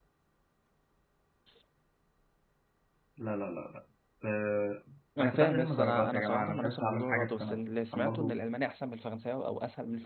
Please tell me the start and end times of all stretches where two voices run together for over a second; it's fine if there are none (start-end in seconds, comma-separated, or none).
5.2-8.4